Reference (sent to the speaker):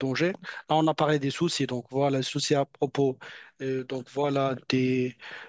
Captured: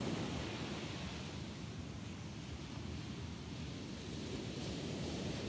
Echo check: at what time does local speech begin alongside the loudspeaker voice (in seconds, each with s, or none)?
none